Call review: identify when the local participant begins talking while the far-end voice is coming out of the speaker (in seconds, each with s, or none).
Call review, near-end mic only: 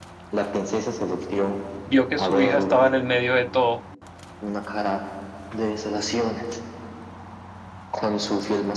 1.8 s